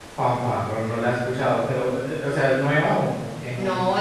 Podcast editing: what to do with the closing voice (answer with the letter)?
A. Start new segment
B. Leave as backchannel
A